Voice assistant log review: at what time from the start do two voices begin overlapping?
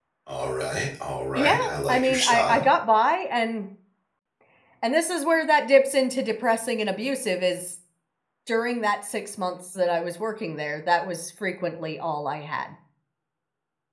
1.4 s

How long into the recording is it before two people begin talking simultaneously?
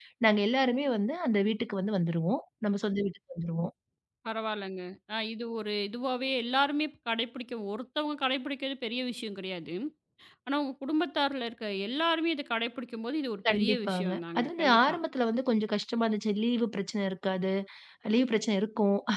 13.4 s

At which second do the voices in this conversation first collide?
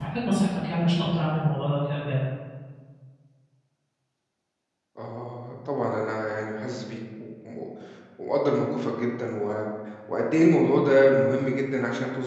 none

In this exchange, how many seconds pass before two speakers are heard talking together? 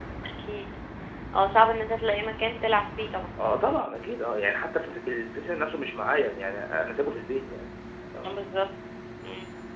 none

